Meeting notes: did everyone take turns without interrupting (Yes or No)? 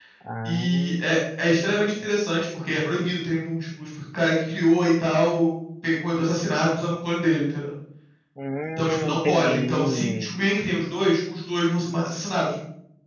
No